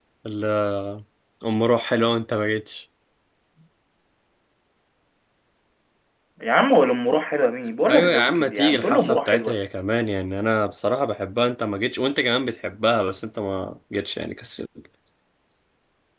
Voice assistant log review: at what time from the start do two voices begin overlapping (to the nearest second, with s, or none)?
8 s